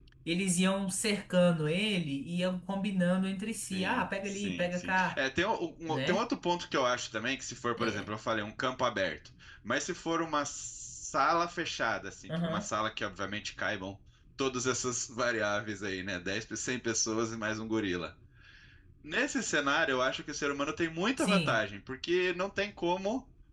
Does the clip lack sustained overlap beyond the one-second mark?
No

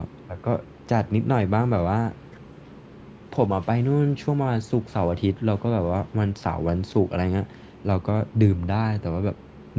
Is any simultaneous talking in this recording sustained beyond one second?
No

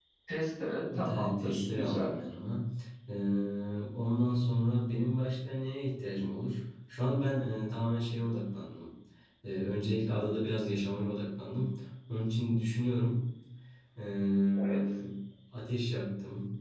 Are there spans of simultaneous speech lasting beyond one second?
Yes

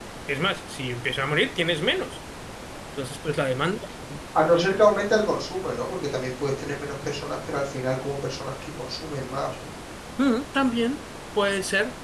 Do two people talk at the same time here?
No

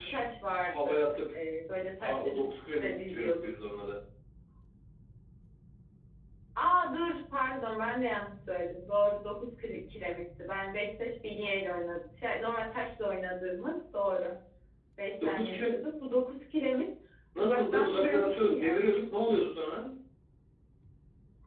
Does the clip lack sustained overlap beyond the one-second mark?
No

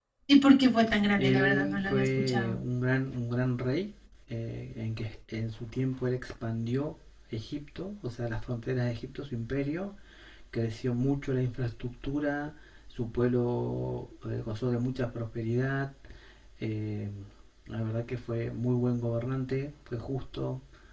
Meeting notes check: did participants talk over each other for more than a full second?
Yes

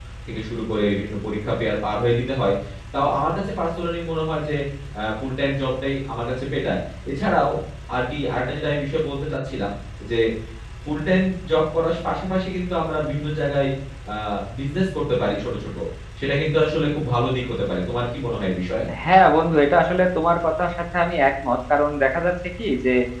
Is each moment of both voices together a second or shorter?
Yes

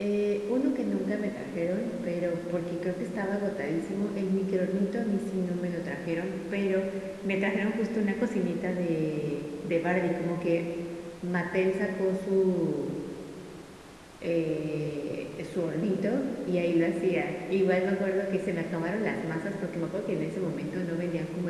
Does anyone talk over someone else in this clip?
No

